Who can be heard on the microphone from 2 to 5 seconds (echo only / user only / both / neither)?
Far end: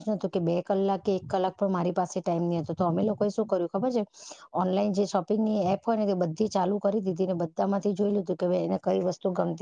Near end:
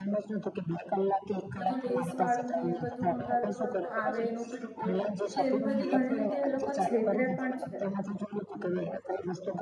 both